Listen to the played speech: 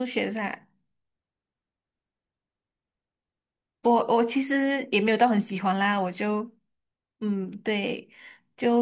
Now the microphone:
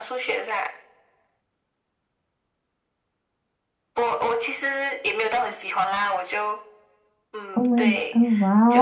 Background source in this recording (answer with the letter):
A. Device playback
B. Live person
A